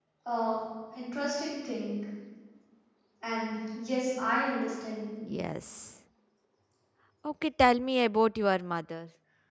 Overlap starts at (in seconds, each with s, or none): none